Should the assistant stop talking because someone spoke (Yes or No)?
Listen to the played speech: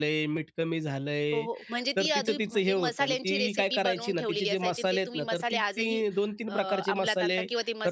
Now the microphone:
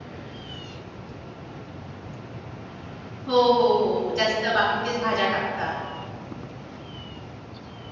Yes